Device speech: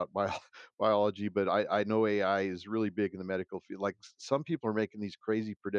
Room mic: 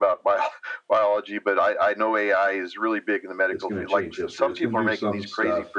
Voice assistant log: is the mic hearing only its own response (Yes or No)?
No